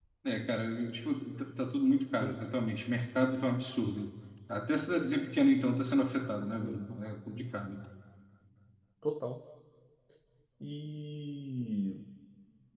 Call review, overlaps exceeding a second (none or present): none